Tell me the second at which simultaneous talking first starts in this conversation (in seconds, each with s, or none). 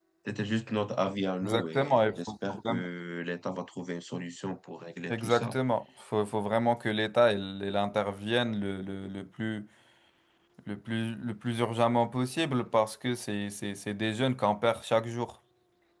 1.4 s